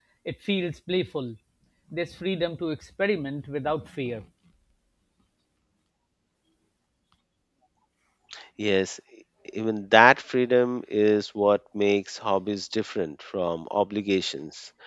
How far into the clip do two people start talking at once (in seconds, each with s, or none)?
none